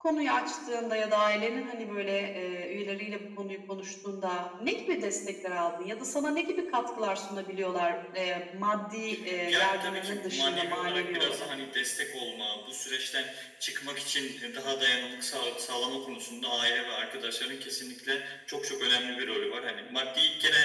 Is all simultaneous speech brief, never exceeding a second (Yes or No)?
No